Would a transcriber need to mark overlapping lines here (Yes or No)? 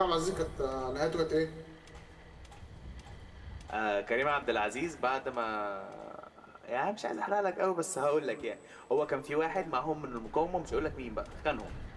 No